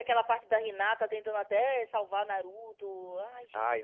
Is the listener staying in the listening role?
No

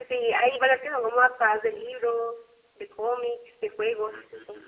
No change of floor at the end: No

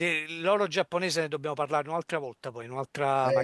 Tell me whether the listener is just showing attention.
No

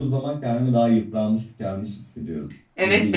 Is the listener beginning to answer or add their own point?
Yes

